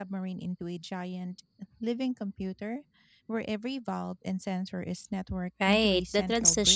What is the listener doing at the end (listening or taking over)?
taking over